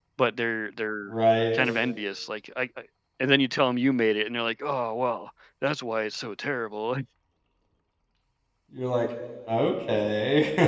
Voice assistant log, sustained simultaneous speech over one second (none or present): none